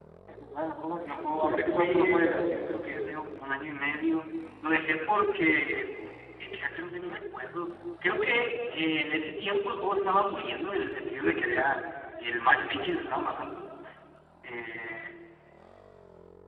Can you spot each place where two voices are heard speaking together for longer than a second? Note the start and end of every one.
1.0-2.5

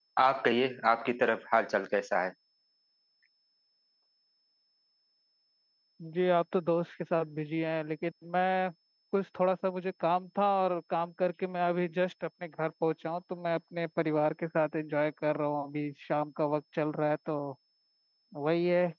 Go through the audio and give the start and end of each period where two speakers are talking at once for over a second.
none

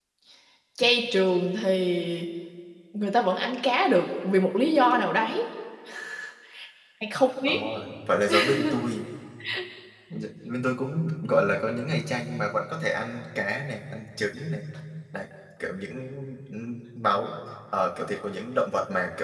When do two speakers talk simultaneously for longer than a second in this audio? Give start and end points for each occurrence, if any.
none

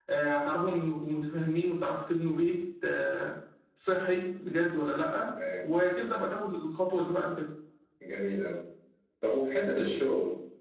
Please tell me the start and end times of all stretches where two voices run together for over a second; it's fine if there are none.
none

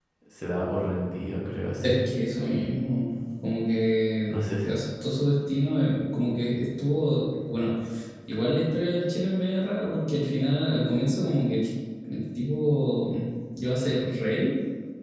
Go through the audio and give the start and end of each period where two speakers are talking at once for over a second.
none

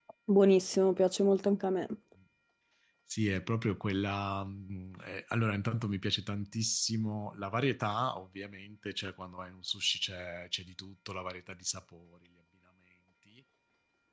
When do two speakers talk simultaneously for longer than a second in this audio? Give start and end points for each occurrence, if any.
none

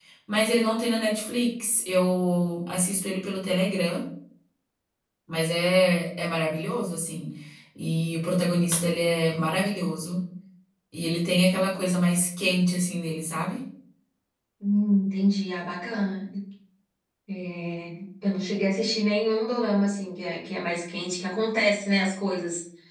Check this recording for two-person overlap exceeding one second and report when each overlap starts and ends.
none

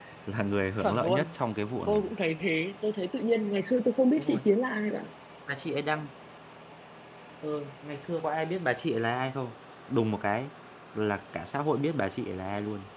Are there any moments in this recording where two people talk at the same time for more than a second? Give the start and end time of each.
none

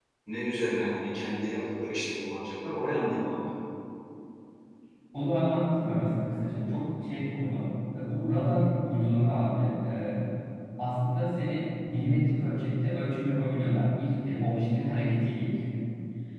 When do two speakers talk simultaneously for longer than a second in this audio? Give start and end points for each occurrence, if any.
none

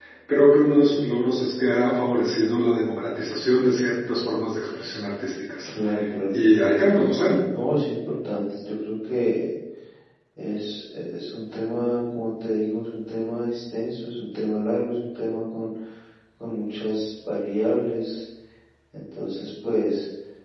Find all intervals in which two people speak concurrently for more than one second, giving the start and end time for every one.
none

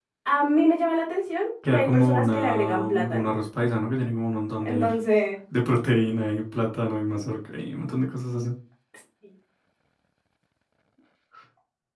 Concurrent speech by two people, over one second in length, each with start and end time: 1.6-3.3

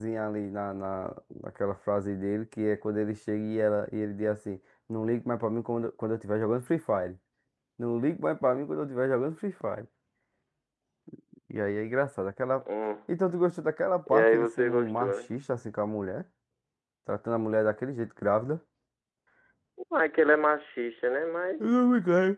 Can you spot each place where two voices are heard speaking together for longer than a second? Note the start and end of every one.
14.1-15.3

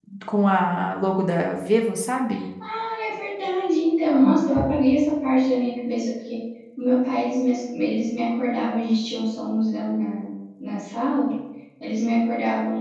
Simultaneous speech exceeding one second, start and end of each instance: none

